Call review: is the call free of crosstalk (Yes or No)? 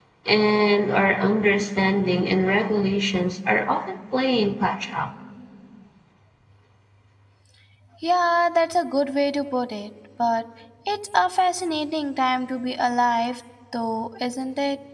Yes